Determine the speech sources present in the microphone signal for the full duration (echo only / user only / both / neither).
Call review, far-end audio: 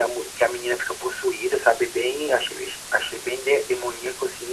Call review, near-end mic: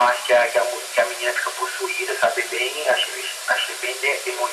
echo only